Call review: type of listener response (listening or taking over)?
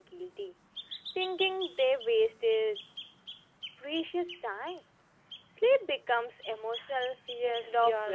taking over